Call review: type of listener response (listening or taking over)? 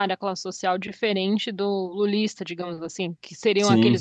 listening